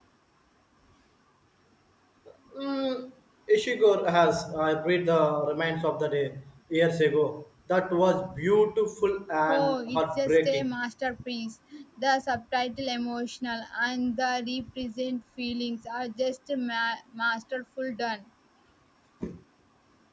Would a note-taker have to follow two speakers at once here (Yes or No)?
Yes